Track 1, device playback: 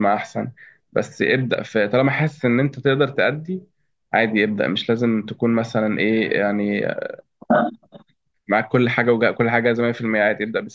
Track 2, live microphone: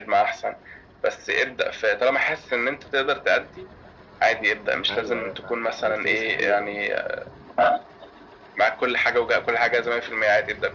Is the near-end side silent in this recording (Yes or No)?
No